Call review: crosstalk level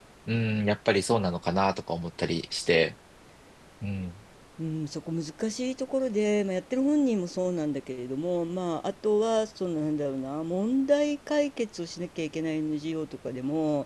none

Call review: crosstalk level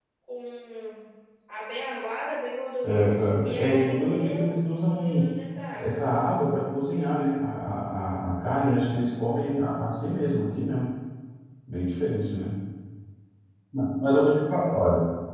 present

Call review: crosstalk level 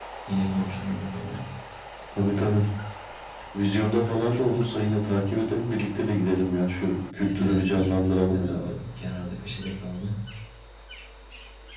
present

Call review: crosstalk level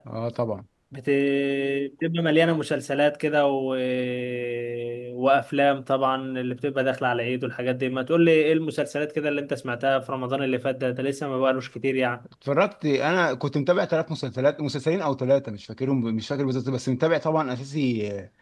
none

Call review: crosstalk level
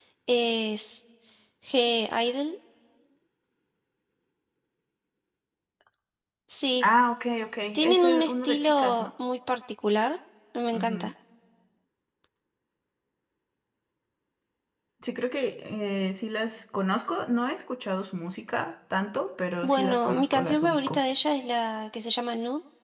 present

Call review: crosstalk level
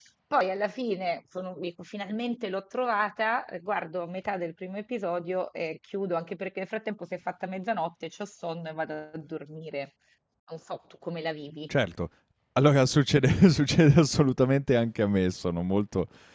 none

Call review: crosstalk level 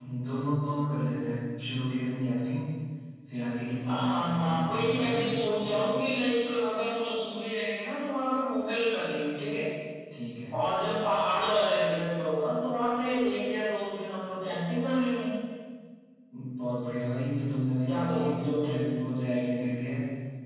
present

